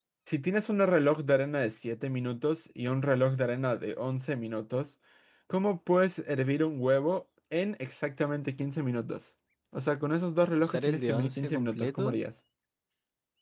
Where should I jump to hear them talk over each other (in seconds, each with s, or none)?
10.6 s